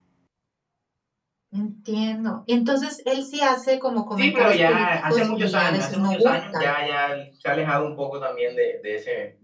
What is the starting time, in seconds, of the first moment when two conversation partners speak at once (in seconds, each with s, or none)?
4.2 s